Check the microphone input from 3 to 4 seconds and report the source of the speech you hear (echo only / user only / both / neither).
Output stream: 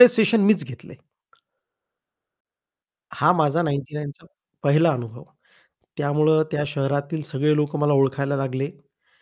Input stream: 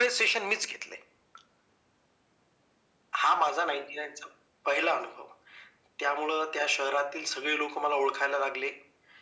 echo only